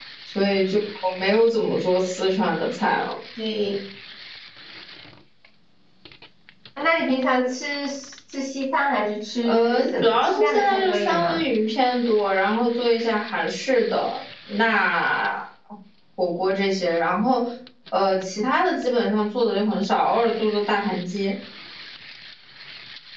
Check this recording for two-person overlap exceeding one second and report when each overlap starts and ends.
9.4-11.4

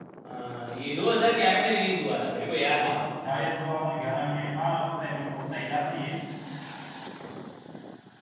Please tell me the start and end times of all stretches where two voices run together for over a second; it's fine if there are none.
none

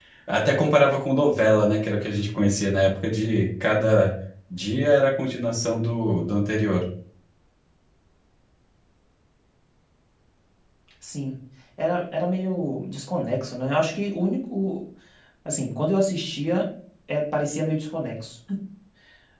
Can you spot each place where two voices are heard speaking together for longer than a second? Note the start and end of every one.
none

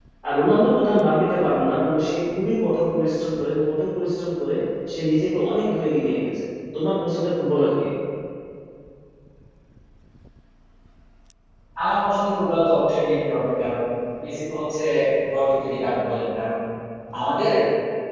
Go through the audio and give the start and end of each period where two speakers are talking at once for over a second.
none

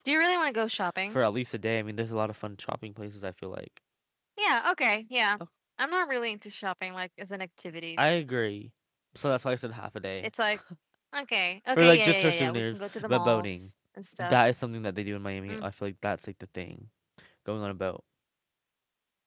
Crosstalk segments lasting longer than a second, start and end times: 11.8-13.7

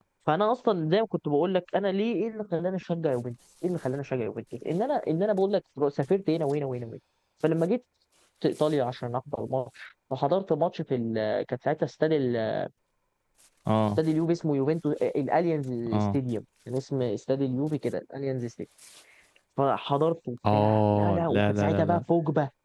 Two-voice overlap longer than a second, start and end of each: 20.5-22.0

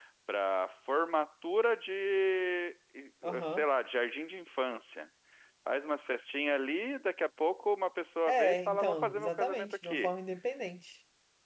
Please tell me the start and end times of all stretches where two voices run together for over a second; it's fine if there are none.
8.3-10.1

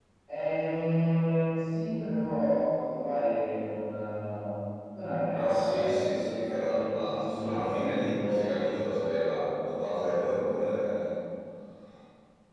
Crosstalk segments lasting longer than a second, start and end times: 5.3-8.5

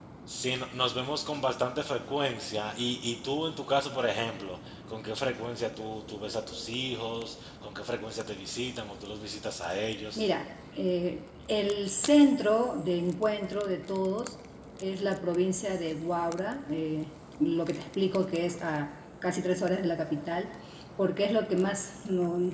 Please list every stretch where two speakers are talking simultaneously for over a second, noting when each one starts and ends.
none

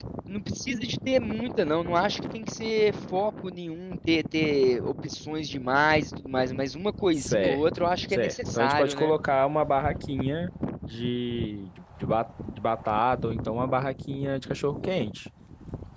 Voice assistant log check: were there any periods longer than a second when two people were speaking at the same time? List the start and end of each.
7.1-9.2

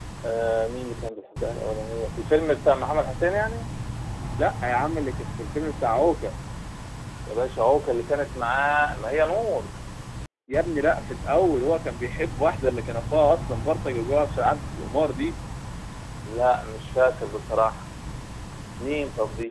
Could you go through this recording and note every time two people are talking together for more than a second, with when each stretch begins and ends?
none

